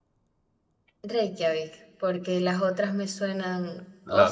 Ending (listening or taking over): listening